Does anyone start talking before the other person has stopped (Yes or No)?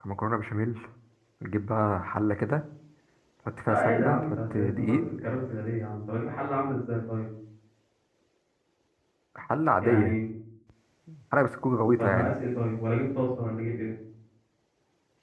Yes